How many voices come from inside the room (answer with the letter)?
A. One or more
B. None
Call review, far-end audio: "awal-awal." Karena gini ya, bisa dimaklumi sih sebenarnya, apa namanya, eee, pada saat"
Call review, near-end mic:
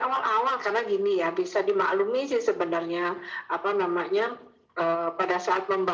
B